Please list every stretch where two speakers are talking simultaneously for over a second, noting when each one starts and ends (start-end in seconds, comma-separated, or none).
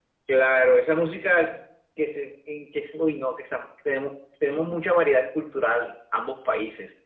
none